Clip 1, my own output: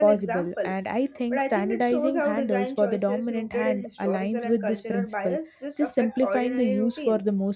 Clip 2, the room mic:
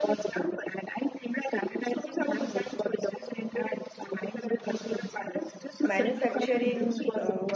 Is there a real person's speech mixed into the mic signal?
Yes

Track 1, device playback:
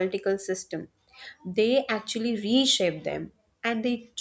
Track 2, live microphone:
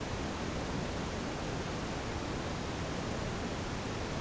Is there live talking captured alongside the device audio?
No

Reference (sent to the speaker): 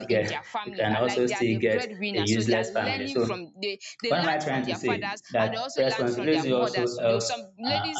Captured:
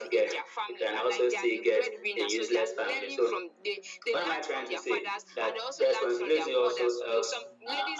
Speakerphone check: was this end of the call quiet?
Yes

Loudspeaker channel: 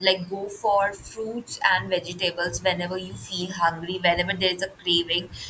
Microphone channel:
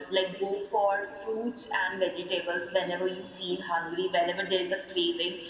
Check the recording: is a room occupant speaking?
No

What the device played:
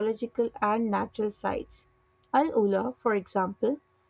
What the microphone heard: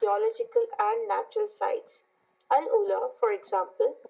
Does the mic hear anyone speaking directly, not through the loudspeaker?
No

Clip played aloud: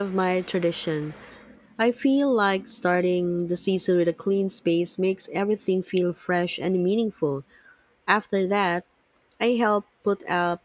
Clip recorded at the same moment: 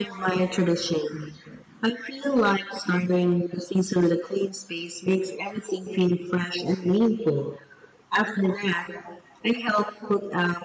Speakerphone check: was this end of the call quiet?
Yes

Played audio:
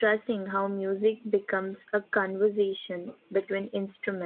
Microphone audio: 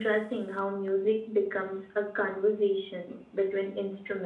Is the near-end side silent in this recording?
Yes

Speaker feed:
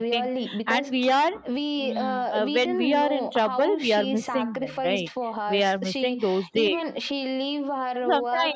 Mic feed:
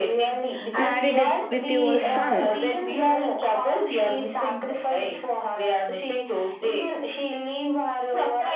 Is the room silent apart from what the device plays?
No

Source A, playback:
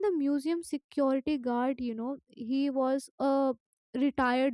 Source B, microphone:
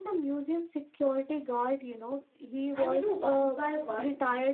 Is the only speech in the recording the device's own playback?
No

